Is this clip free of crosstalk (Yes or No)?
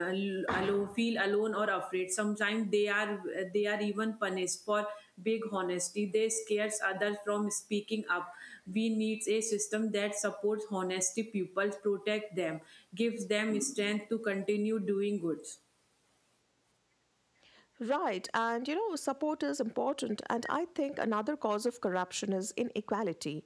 Yes